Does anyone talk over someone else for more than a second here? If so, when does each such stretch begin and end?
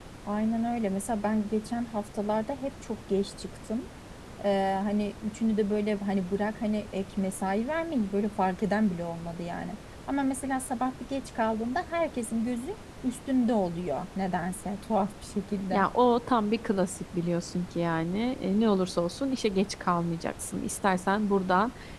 none

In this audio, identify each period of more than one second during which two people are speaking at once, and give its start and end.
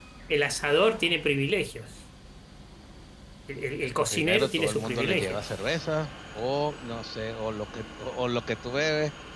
3.8-5.4

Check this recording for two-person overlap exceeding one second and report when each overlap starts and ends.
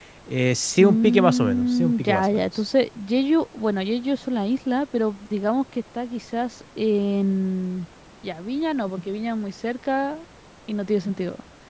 0.8-2.4

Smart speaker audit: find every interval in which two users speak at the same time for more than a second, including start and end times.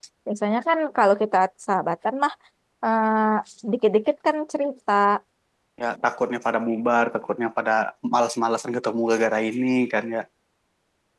none

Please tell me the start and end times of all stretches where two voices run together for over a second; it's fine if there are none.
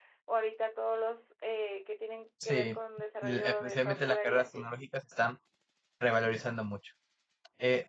3.2-4.7

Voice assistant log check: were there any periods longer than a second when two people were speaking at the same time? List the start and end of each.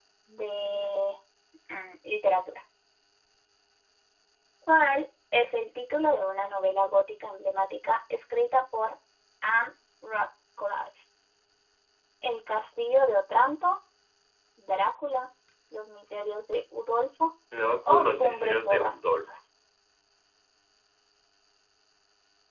17.9-19.2

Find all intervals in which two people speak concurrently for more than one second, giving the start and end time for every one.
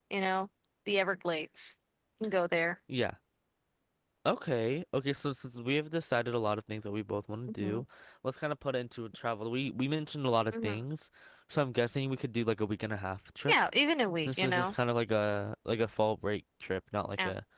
none

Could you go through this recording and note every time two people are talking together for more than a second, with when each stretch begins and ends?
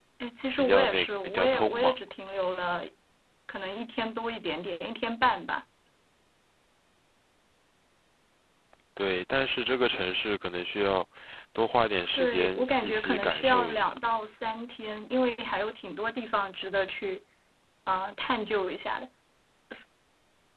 0.6-1.9, 12.1-13.9

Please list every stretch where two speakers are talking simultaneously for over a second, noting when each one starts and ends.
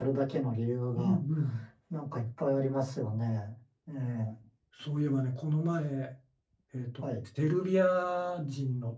none

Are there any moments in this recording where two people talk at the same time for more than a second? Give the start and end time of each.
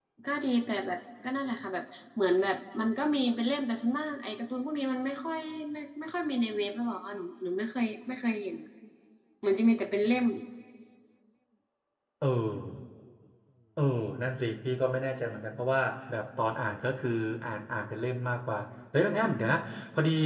none

